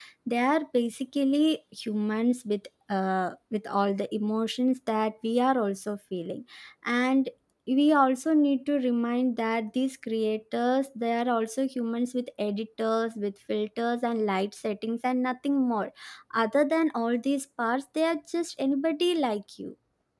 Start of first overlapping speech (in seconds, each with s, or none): none